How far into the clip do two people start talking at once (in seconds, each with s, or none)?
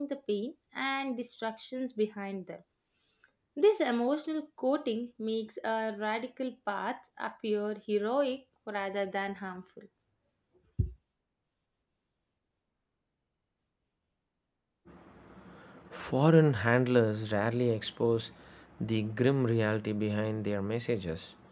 none